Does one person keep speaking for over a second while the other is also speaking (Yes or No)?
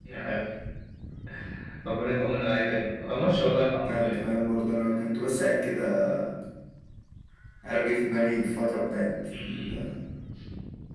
No